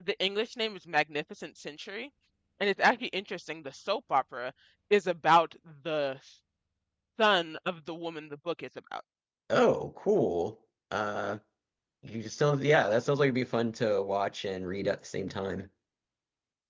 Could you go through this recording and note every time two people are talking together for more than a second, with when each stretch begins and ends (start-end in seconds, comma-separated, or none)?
none